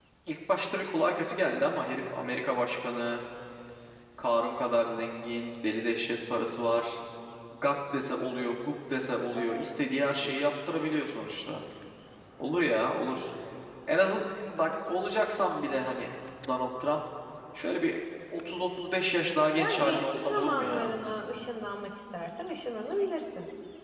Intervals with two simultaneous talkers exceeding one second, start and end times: 19.6-20.9

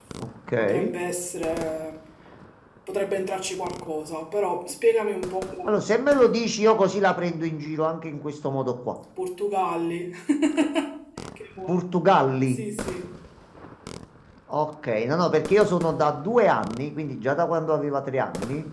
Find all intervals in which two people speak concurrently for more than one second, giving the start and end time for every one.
none

